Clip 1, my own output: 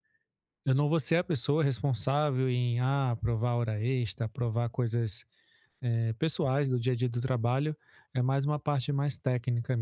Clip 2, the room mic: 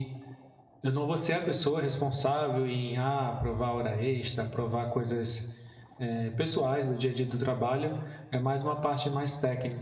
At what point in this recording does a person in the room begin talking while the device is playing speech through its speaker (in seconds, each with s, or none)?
none